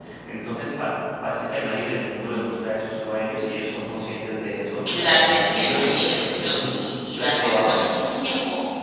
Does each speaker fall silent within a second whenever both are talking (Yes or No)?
No